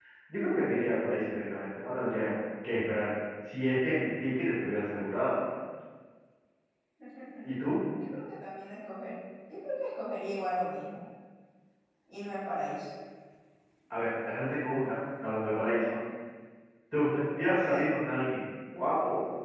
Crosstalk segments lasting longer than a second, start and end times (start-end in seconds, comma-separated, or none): none